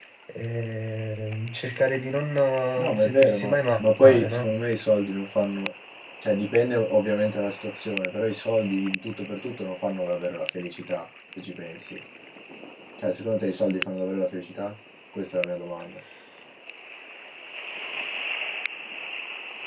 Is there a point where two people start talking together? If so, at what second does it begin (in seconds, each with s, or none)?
2.8 s